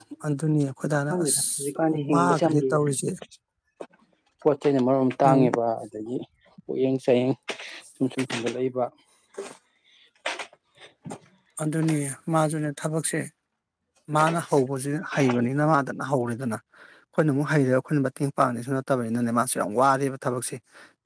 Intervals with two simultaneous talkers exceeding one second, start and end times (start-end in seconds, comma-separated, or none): 1.1-2.9